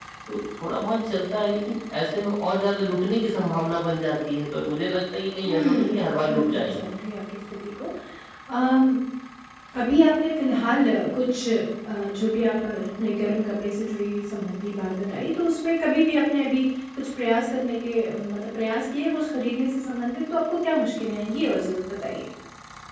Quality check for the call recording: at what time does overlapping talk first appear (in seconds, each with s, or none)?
5.4 s